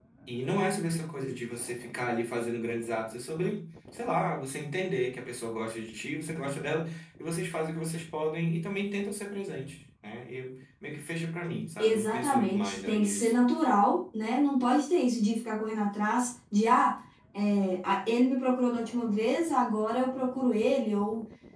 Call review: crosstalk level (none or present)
present